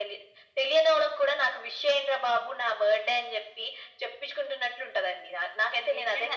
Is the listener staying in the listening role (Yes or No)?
No